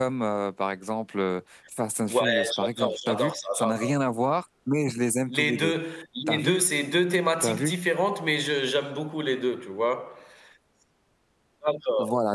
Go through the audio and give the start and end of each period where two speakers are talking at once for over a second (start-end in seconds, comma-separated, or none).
2.1-3.9